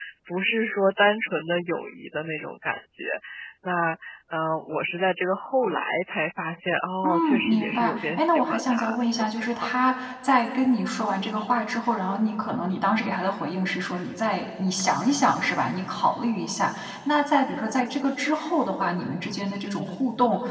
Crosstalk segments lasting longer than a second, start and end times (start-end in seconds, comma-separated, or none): 7.0-9.7